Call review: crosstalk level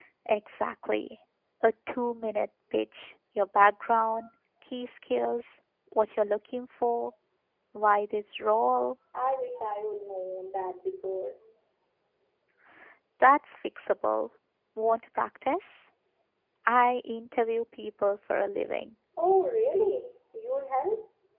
none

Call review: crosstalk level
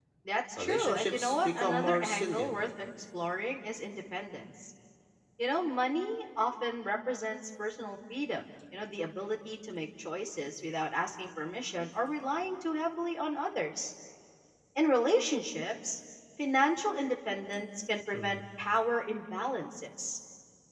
present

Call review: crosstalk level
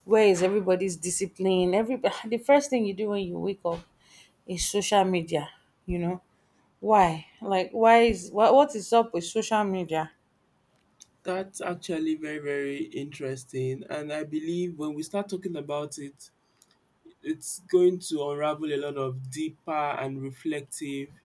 none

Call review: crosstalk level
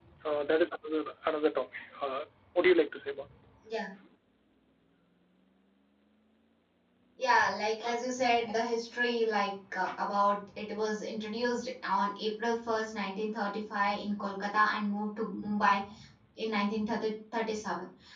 none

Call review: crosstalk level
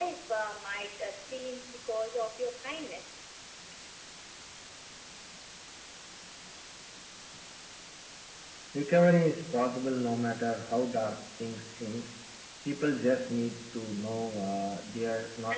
none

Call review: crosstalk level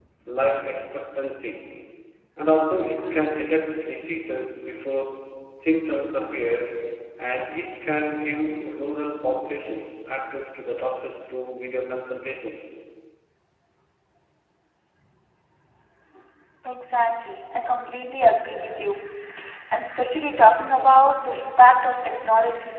none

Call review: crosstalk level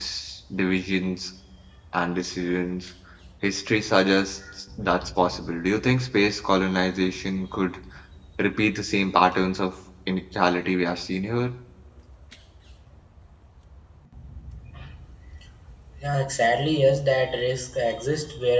none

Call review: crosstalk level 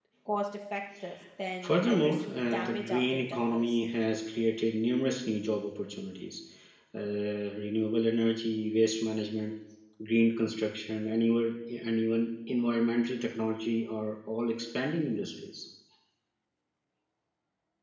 present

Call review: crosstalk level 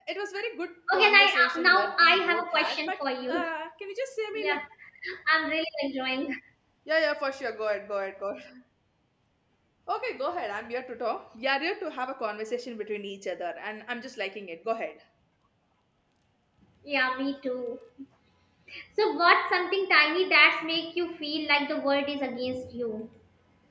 present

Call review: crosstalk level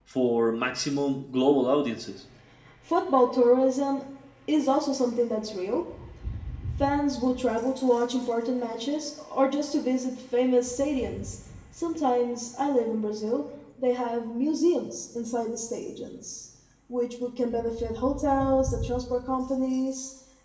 none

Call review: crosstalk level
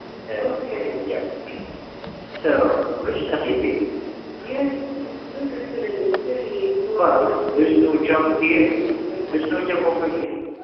present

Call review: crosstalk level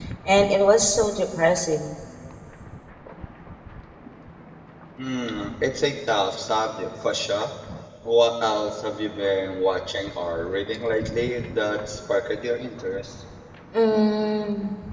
none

